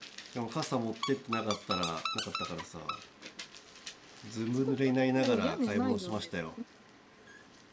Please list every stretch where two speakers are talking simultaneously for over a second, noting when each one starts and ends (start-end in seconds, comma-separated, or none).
4.5-6.3